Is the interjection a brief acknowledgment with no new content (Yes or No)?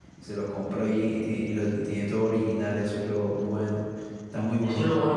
No